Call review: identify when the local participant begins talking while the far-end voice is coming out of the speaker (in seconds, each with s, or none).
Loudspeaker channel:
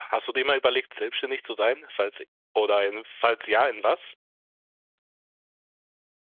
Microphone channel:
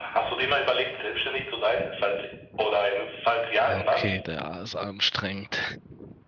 3.6 s